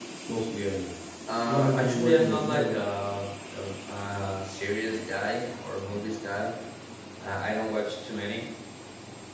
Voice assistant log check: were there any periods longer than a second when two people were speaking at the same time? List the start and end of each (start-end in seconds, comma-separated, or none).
1.4-2.8